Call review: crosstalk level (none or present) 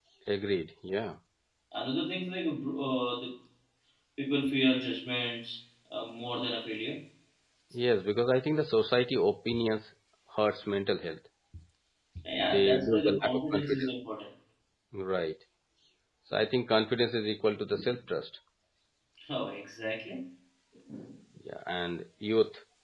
present